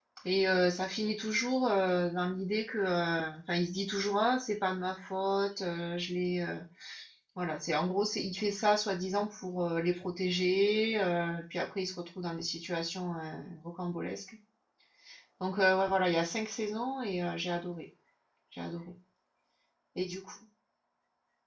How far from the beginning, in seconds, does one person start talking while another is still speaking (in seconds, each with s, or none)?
none